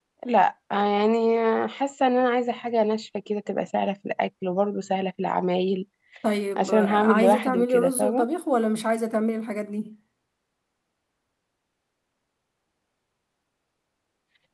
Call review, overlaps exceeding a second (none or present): present